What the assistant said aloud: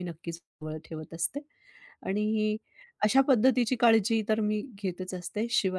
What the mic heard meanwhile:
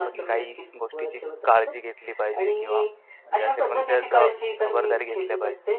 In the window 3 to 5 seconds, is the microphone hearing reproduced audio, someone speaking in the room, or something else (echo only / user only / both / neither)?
both